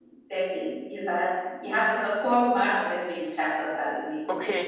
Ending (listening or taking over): taking over